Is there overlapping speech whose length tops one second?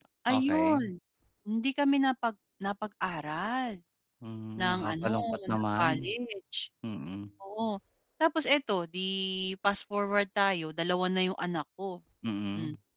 Yes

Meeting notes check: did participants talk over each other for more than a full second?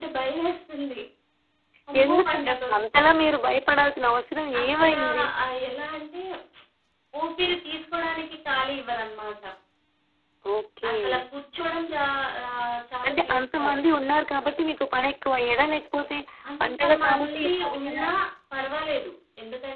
Yes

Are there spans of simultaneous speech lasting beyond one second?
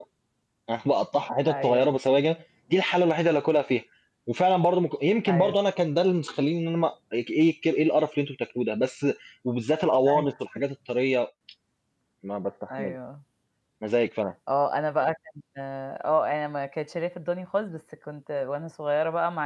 No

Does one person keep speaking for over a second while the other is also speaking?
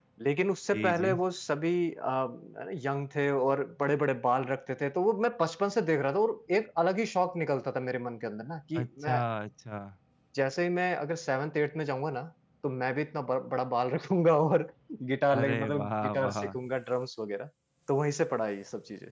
Yes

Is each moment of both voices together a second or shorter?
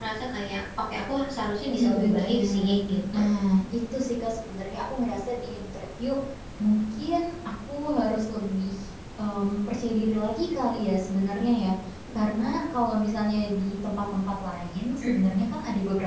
No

